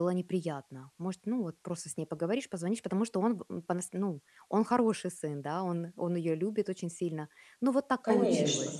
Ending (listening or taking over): taking over